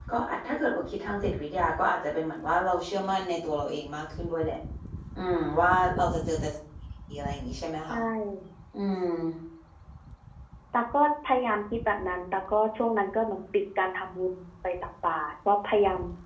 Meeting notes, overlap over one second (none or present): none